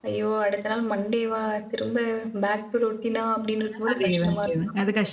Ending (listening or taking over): taking over